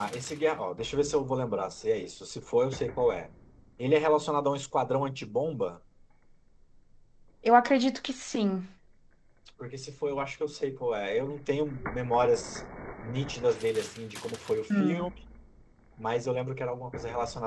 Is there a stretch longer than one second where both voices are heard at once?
No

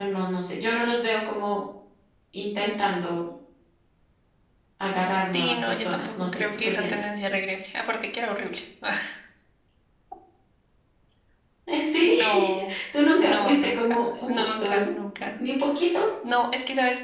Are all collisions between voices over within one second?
No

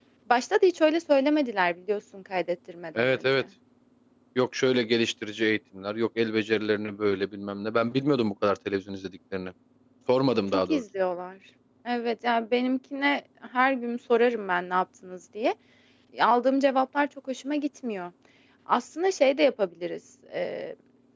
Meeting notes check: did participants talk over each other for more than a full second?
No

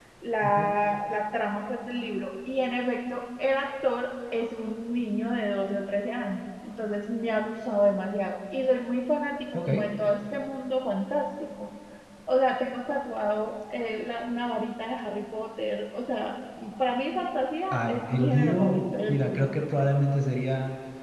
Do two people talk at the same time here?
Yes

